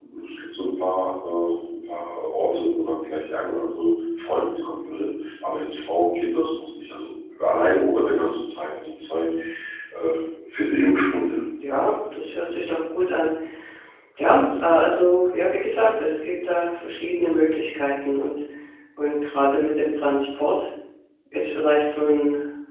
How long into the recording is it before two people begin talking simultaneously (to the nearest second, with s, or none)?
none